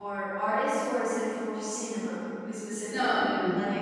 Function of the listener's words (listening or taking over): taking over